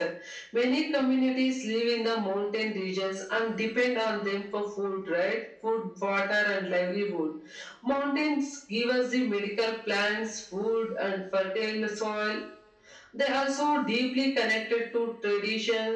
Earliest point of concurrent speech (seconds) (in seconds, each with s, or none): none